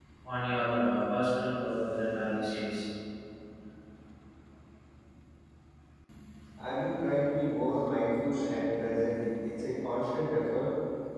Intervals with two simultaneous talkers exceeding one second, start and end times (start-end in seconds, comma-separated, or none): none